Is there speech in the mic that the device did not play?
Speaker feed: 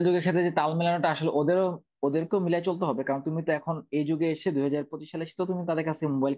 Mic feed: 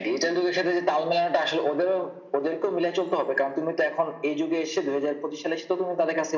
No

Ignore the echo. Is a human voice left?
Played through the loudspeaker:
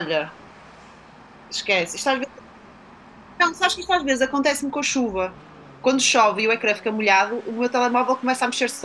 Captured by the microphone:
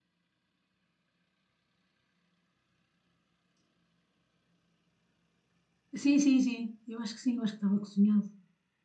Yes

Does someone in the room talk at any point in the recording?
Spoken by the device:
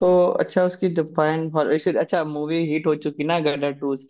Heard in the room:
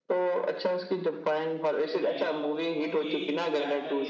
Yes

